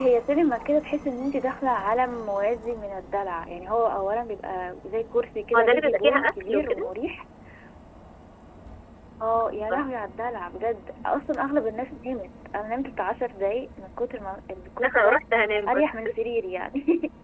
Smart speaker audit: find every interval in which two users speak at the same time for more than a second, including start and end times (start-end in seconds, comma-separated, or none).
5.6-6.9